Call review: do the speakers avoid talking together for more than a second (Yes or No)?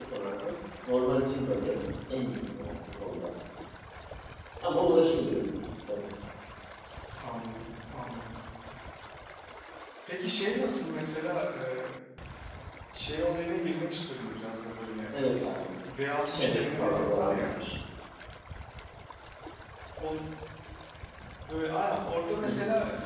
No